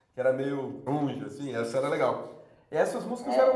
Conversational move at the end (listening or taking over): listening